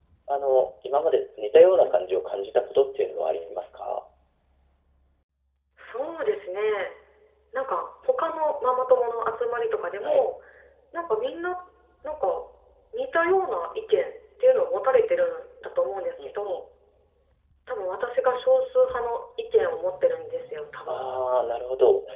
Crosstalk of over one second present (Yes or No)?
No